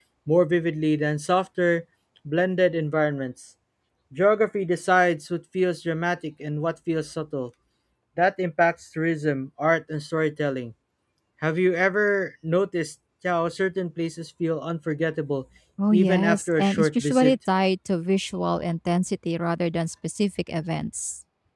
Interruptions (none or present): present